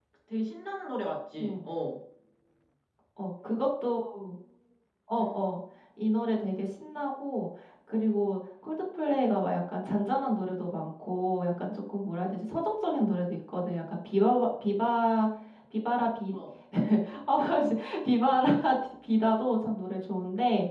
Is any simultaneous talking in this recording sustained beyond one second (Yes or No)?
No